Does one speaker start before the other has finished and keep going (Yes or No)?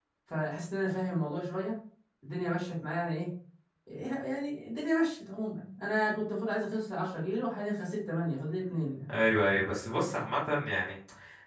No